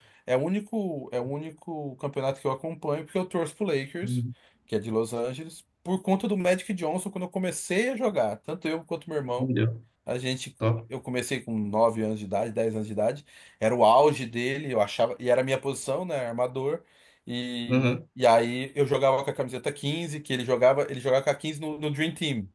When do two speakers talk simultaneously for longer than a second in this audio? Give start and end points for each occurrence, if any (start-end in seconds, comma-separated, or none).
none